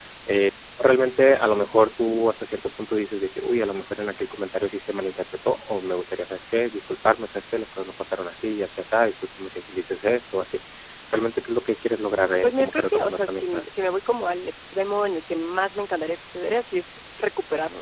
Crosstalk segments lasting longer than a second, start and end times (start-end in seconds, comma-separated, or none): 12.4-13.7